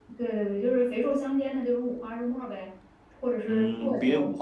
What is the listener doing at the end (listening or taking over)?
taking over